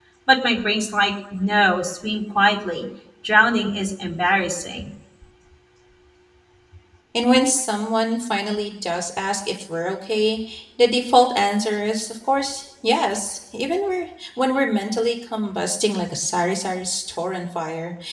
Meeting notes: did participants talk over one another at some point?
No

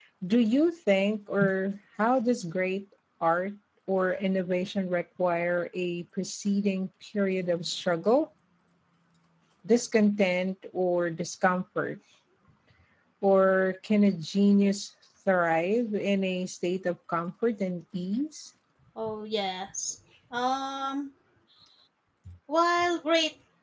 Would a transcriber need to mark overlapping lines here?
No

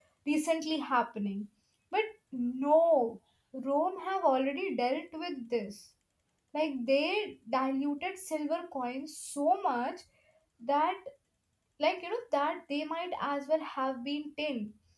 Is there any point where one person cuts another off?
No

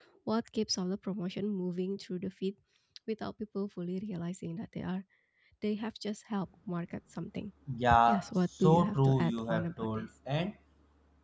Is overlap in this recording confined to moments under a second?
No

